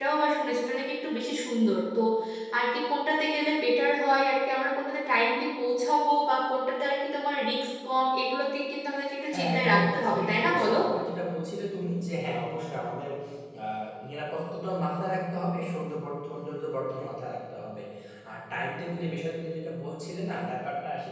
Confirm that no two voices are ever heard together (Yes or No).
No